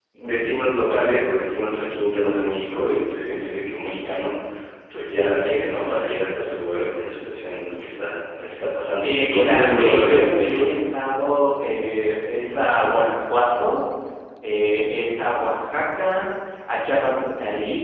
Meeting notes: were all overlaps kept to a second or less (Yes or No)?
No